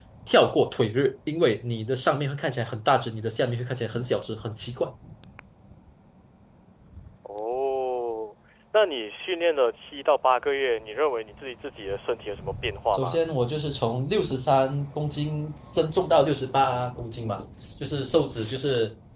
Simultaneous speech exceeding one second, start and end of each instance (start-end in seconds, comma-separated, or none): none